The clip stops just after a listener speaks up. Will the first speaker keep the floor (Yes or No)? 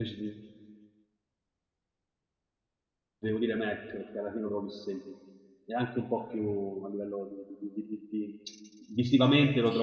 No